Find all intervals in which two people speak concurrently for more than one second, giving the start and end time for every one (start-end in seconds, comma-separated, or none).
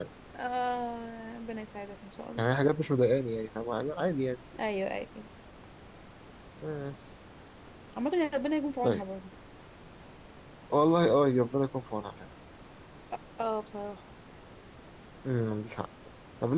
none